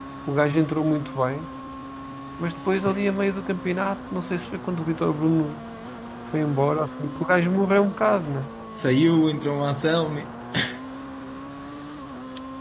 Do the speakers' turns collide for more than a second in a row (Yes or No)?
No